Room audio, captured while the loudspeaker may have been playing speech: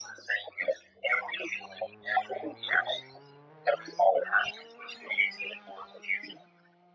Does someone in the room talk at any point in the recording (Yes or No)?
No